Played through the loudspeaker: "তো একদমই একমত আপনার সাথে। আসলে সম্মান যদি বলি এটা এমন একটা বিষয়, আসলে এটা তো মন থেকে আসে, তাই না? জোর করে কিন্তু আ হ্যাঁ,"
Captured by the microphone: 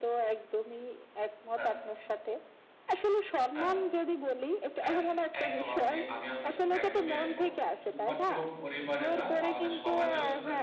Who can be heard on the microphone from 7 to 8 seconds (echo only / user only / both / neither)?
both